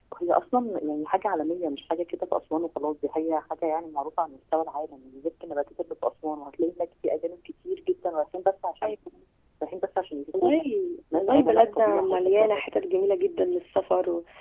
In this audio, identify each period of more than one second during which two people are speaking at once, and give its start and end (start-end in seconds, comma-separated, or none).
11.1-12.6